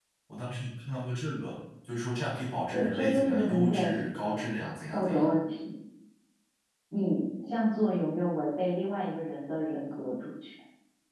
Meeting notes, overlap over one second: present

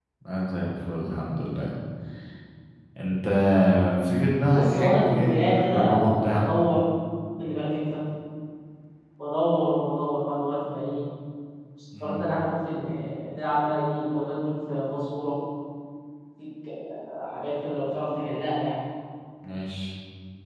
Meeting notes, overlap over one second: present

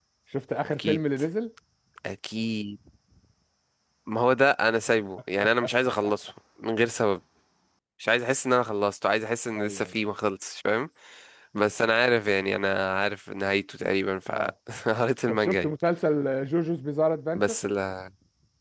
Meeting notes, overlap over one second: none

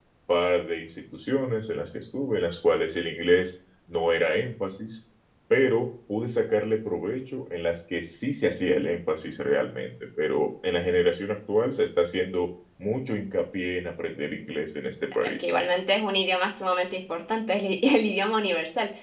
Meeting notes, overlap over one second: none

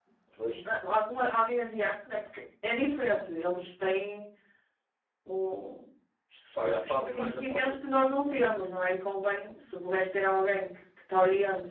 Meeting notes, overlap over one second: present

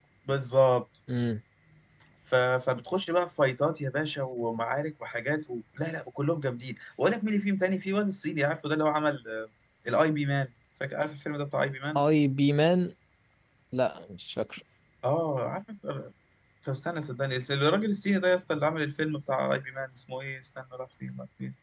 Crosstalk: none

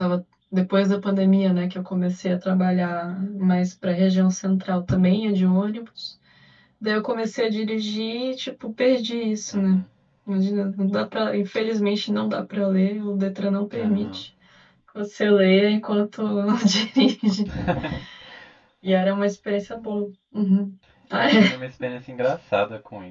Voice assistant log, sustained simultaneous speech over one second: none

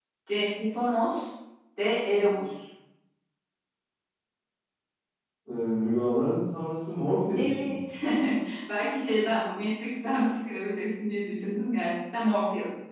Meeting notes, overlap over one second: none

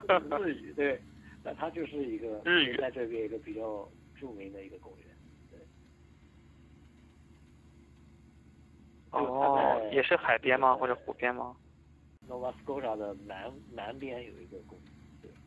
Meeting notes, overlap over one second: present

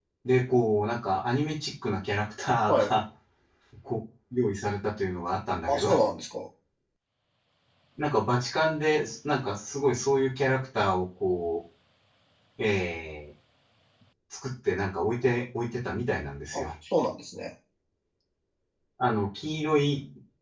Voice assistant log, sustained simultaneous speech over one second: none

